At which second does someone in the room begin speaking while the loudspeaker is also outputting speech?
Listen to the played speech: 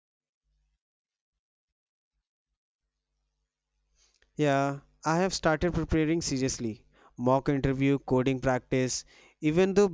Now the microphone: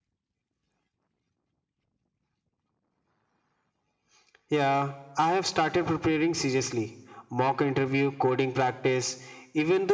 none

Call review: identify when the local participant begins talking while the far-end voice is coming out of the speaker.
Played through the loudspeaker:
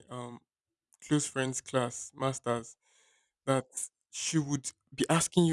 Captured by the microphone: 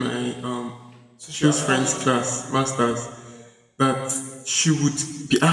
1.2 s

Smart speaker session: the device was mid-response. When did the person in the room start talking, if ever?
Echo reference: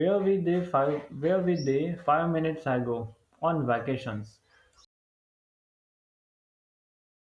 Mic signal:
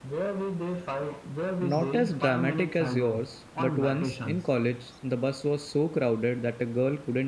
1.6 s

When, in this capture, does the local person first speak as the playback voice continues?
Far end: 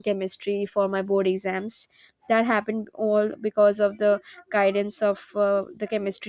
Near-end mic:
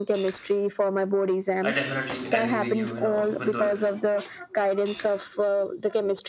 1.6 s

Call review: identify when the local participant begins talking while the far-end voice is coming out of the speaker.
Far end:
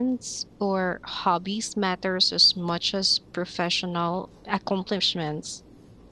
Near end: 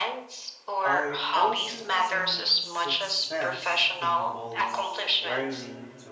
0.8 s

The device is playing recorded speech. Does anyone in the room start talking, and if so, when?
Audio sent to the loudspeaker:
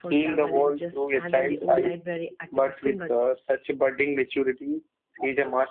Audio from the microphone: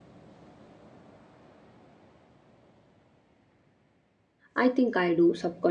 4.5 s

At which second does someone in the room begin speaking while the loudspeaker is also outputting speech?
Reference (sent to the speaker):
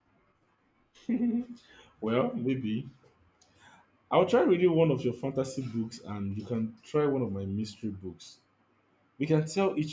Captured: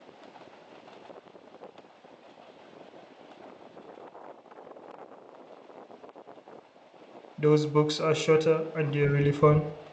7.4 s

